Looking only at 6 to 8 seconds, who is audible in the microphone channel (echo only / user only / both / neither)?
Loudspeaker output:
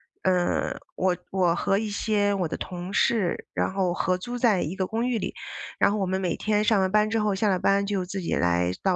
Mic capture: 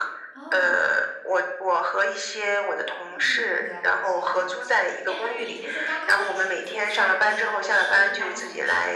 both